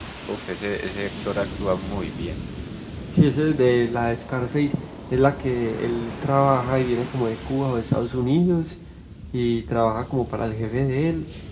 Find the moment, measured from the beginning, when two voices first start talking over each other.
none

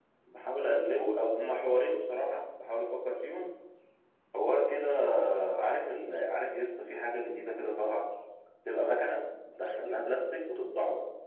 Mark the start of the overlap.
none

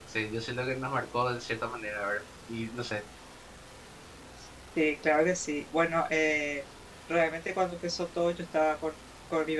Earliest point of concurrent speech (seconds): none

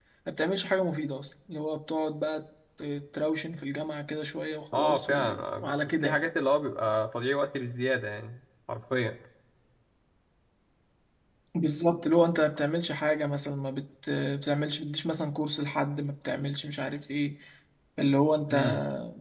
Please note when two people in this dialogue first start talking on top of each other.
4.7 s

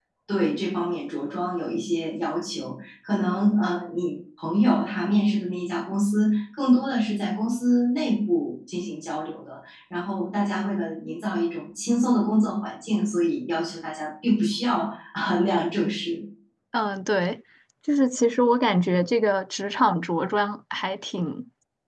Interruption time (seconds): none

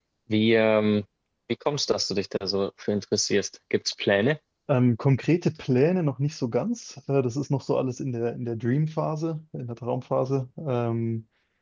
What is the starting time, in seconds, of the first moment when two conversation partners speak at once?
none

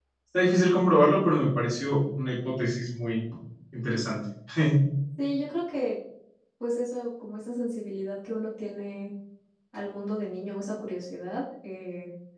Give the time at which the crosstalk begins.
none

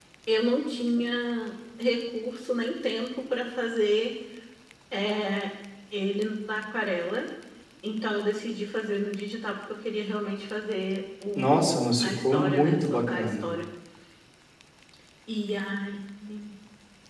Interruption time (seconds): 11.4 s

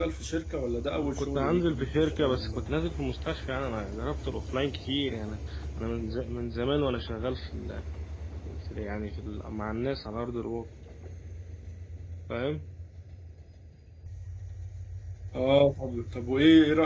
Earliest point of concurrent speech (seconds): 1.2 s

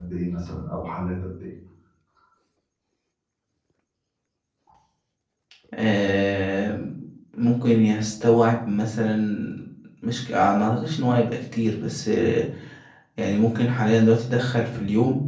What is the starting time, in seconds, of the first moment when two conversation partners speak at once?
none

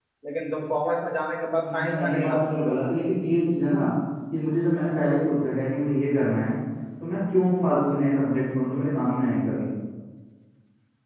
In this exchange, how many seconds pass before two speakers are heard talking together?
1.6 s

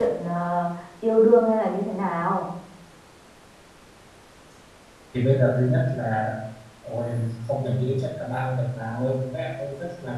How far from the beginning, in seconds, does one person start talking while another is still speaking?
none

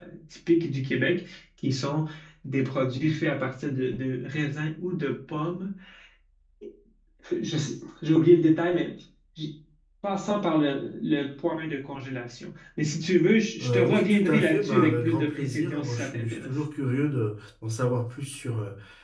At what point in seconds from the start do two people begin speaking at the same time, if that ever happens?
13.6 s

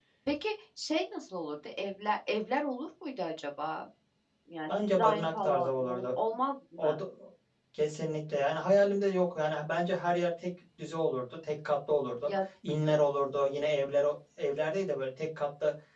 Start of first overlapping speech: 4.8 s

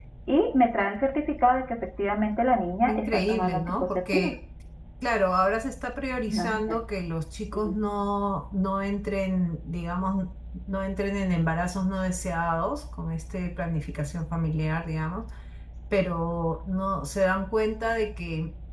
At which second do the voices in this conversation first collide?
2.9 s

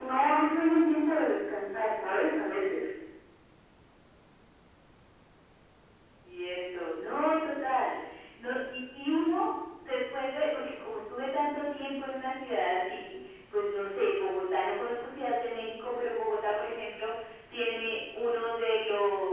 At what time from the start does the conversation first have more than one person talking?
none

